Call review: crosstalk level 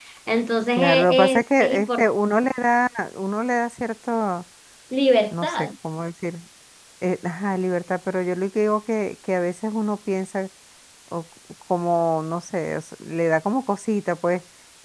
present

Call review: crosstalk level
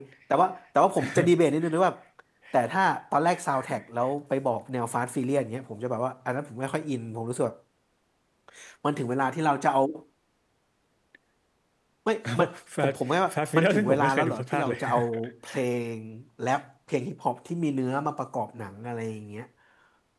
present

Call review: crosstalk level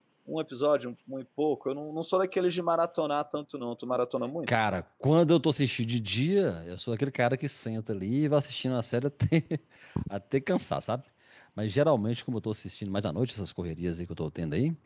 none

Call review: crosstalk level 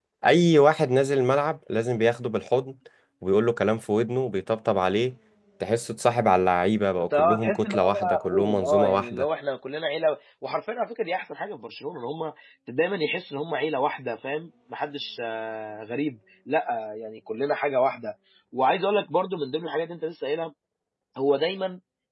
present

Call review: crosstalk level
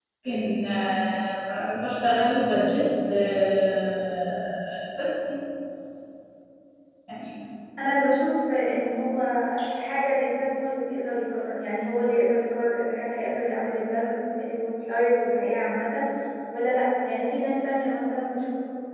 none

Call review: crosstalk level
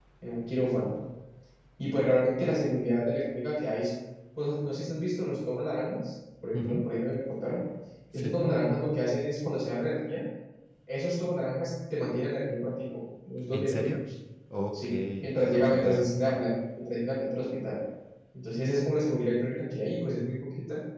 present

